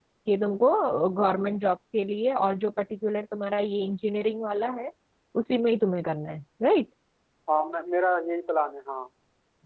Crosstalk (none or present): none